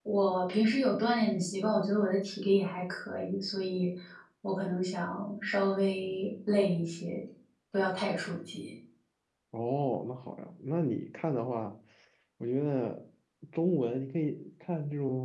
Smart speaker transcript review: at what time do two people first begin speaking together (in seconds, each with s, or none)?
none